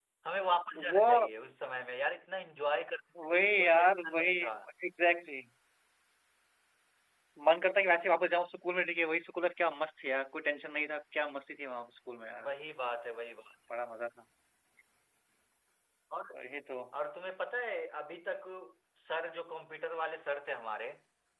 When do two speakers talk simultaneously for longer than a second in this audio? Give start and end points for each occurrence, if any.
3.3-4.5

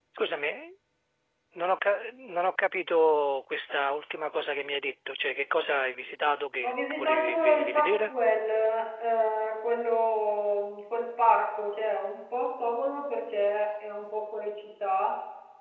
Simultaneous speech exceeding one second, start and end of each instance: 6.6-8.1

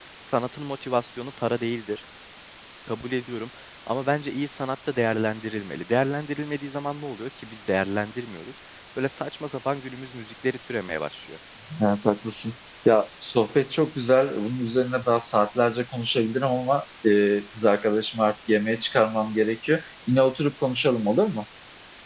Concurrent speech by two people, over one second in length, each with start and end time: none

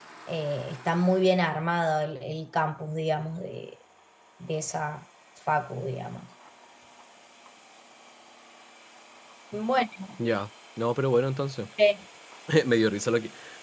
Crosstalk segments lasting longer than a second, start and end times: none

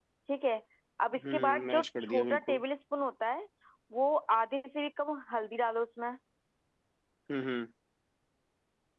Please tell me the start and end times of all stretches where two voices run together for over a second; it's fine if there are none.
1.3-2.6

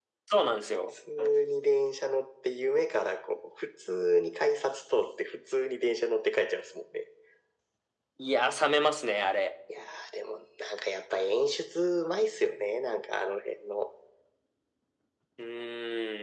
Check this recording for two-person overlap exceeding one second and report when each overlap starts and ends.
none

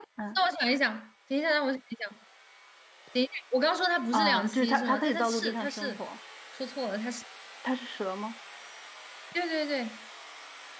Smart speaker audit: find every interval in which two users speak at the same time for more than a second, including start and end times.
4.1-6.0

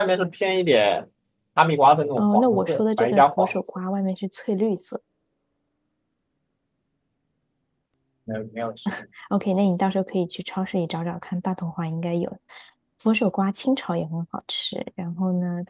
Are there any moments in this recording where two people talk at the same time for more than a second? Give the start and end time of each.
2.2-3.5

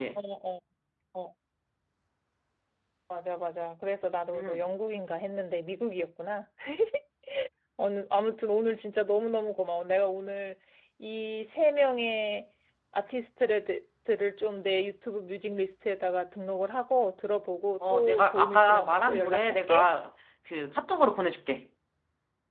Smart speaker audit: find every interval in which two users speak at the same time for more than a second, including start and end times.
17.9-19.9

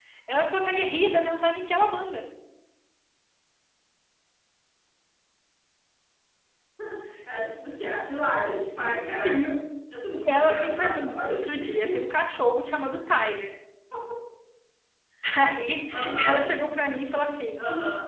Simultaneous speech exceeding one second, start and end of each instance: 10.3-12.0

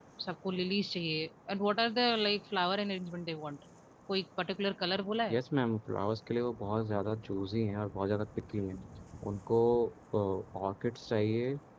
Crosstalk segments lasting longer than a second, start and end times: none

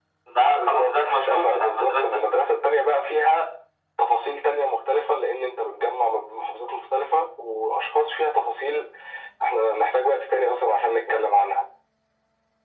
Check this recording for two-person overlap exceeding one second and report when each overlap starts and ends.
0.6-2.0

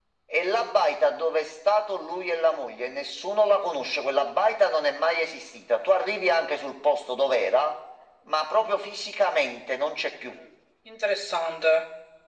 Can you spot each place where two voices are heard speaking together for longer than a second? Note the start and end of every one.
none

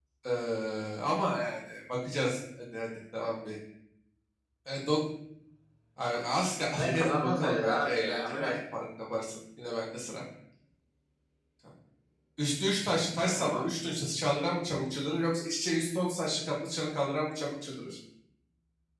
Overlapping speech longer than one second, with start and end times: 6.4-8.6

